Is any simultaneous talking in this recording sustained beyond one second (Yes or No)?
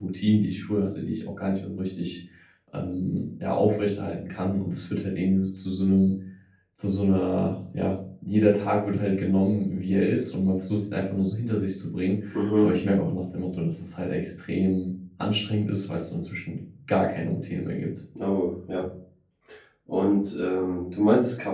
No